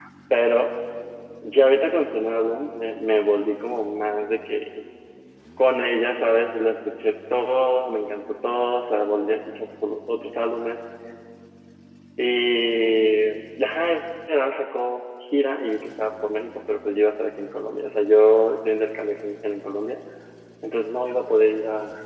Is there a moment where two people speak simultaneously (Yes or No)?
No